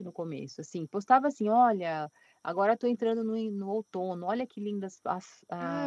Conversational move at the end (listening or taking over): taking over